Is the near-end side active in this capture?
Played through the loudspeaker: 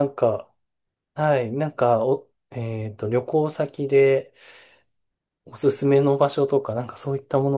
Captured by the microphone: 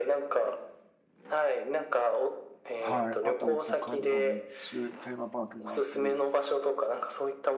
Yes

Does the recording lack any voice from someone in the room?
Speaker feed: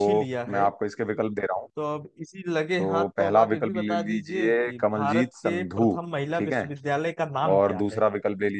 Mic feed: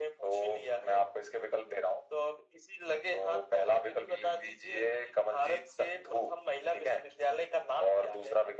Yes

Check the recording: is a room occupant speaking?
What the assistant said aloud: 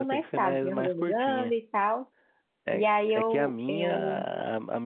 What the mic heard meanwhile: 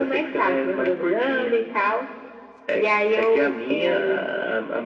No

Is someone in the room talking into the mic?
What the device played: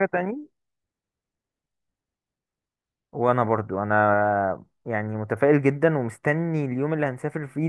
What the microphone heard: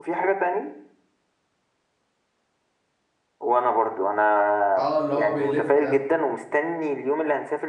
Yes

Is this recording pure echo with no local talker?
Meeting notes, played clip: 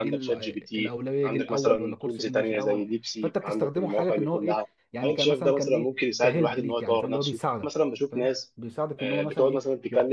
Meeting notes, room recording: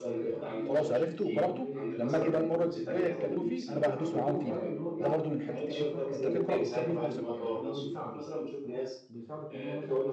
No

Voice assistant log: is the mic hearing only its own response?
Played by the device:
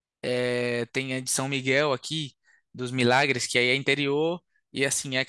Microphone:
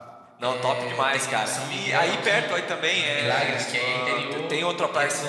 No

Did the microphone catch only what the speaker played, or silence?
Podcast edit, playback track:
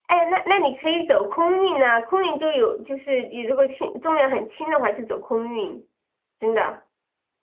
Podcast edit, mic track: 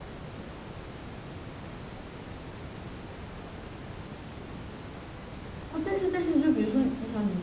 No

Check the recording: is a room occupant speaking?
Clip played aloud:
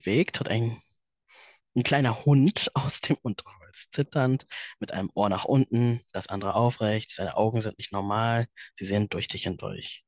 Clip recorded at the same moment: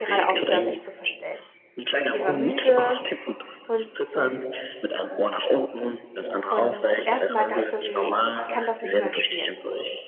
Yes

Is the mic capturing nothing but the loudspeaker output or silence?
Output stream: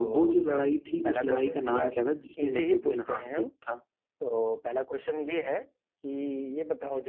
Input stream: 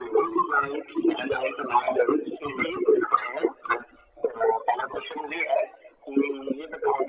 Yes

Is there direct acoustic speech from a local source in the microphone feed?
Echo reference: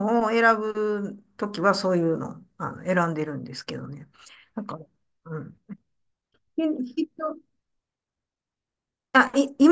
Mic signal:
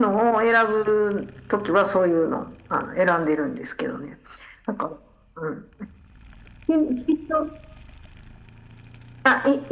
No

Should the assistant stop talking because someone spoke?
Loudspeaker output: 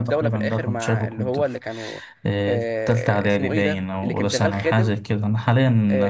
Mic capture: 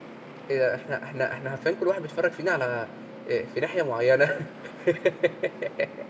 Yes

